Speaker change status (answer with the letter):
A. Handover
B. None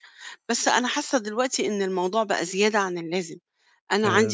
B